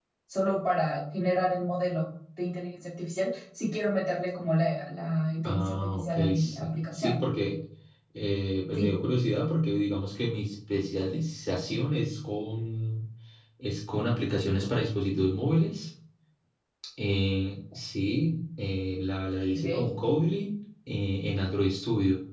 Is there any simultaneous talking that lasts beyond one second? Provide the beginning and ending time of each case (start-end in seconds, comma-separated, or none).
5.4-7.2